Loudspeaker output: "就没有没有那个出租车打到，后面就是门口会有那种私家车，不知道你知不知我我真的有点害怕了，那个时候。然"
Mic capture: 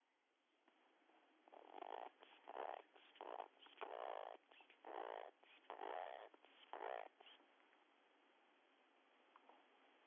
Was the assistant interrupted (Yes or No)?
No